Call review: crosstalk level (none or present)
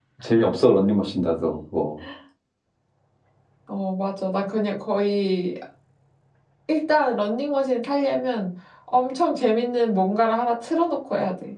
none